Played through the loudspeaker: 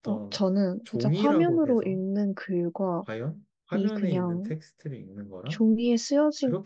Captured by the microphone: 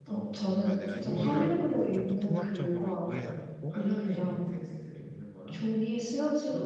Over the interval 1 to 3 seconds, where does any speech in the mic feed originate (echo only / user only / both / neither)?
both